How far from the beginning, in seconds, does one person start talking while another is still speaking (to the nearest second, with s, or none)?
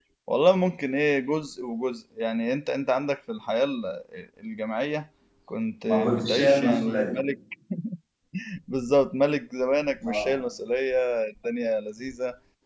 6 s